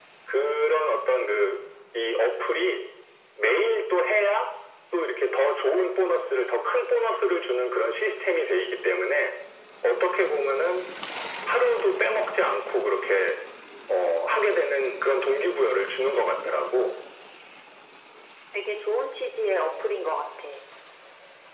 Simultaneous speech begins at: none

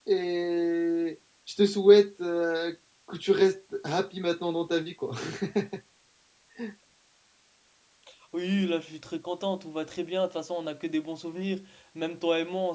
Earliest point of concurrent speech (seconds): none

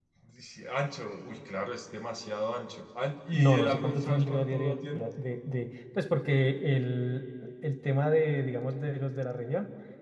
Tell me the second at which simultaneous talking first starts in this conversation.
3.3 s

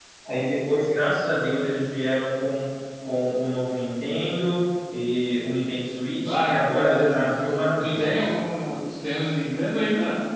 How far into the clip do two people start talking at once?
6.1 s

